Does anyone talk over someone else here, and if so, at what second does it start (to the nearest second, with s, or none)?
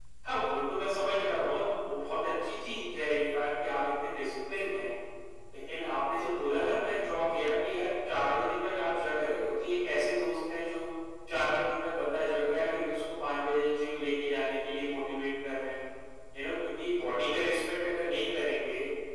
none